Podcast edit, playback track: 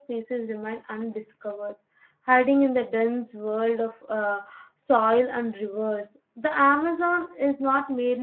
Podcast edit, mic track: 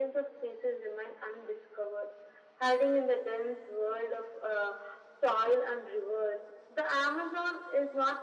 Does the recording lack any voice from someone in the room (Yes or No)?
Yes